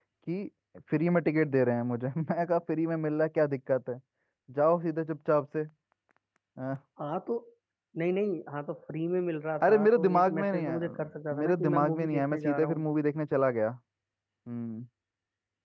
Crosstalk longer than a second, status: present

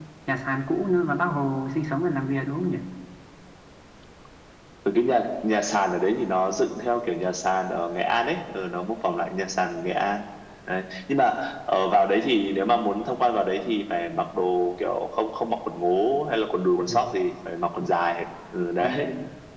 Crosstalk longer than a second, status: none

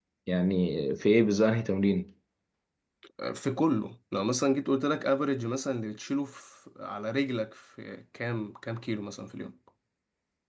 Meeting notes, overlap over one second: none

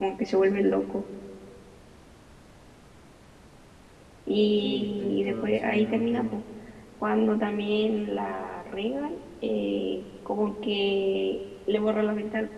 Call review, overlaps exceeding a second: present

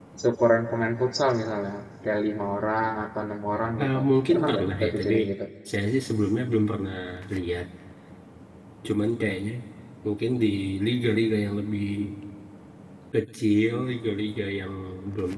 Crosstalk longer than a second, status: present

